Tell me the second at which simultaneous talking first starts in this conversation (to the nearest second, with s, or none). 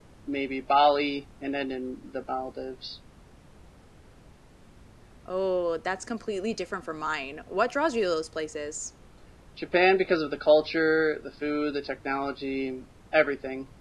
none